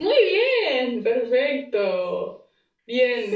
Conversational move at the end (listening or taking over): listening